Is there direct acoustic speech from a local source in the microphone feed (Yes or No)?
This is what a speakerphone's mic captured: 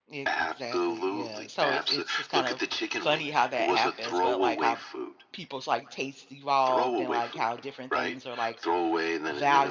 Yes